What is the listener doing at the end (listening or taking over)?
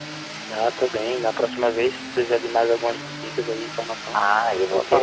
taking over